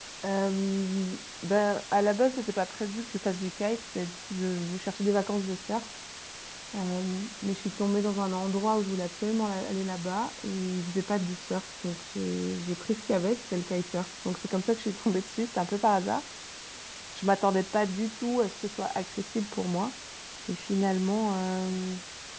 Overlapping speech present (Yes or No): No